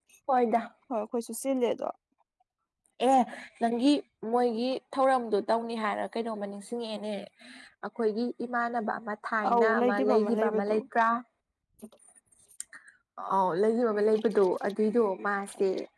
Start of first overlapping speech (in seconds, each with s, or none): 9.4 s